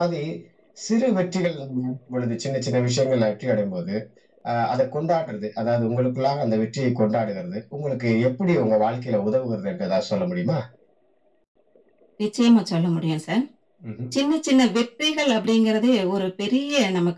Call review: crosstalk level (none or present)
none